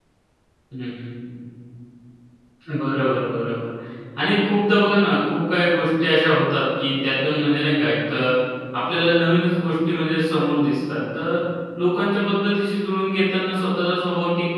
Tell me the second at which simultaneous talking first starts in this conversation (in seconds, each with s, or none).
none